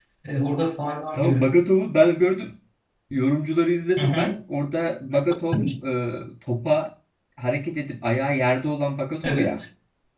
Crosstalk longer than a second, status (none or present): none